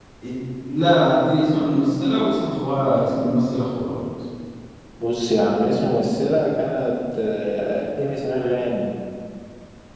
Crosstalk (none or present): none